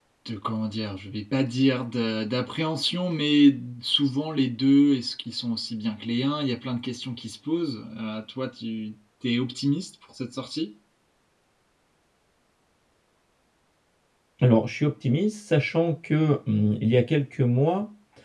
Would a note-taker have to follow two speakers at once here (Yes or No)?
No